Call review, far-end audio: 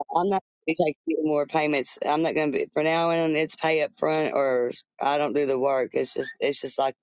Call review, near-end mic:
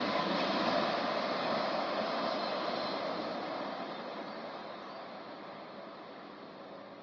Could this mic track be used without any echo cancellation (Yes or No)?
Yes